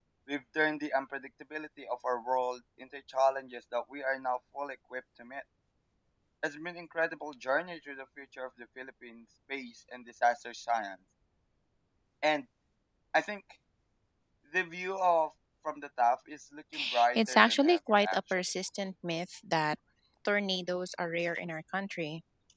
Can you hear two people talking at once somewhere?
Yes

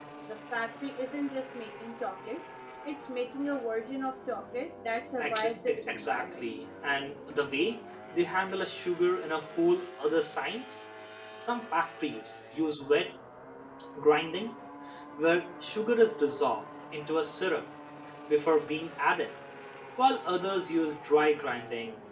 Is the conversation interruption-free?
No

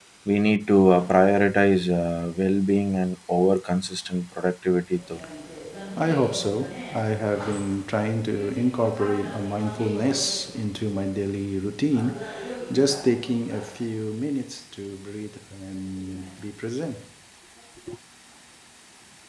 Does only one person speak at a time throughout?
Yes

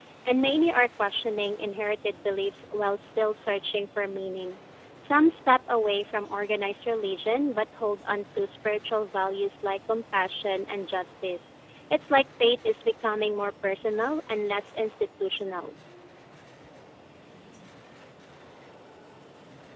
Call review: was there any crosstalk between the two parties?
No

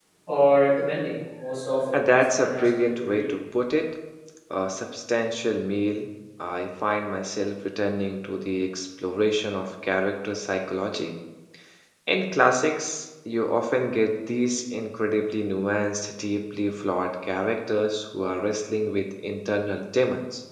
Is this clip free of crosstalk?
No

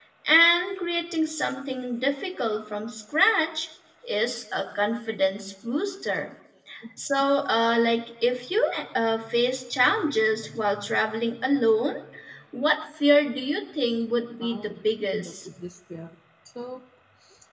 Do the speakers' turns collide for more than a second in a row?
No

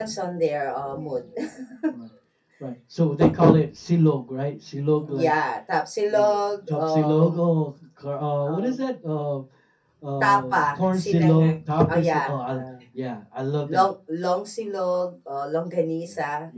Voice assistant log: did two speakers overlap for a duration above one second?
Yes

